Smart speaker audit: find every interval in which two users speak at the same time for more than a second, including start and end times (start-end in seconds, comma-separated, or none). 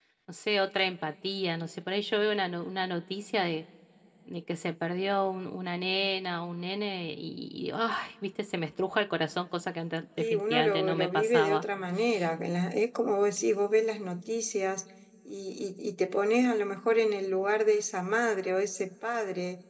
10.2-11.6